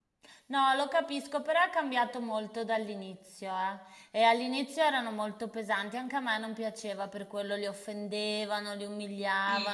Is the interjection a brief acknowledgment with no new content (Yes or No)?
Yes